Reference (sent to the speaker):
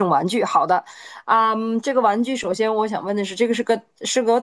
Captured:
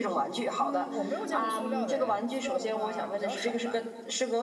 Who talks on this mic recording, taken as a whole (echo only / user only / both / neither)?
both